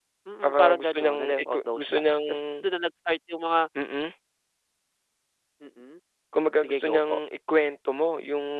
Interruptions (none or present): present